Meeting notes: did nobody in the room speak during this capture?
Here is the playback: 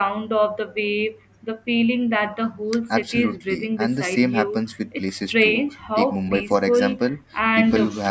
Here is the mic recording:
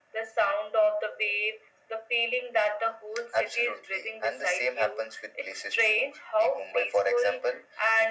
Yes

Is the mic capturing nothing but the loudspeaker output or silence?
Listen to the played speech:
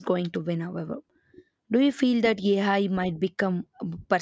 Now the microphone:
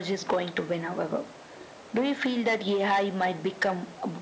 Yes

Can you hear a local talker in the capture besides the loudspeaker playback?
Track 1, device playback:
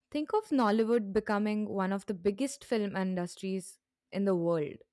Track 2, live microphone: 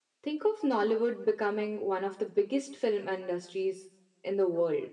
No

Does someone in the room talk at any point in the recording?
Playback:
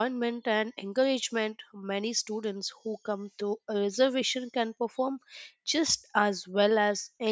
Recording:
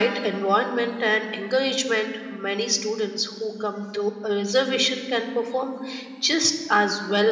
No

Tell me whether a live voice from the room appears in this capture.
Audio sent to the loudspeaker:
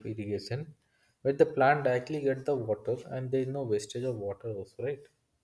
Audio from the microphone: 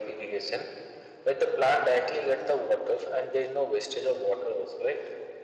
No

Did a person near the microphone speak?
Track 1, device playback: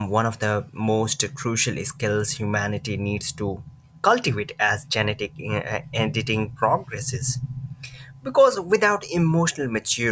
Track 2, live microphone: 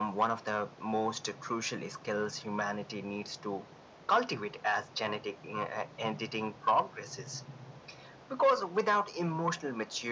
No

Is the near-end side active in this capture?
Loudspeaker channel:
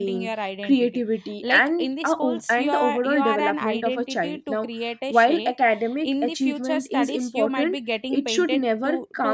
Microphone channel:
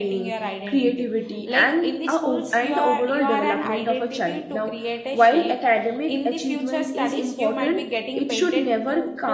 No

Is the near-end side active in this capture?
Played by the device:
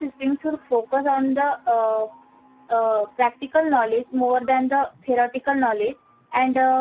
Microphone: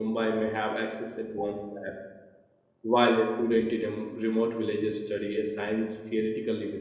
Yes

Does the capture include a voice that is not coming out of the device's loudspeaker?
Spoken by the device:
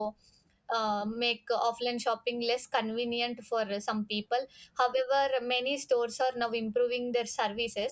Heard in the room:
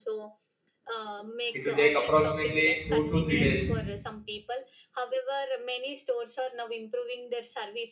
Yes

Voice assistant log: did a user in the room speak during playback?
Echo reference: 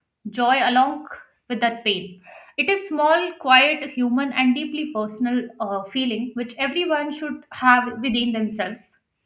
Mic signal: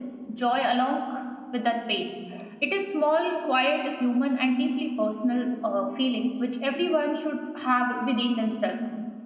No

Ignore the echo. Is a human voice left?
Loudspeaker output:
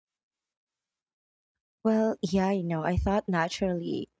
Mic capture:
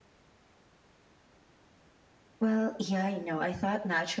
No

